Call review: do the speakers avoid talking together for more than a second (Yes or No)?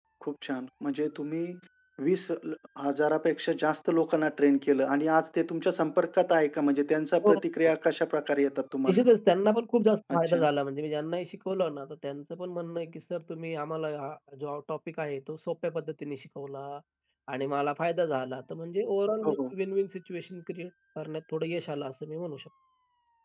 Yes